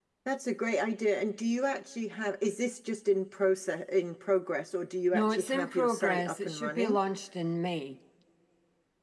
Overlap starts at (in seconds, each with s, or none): 5.1 s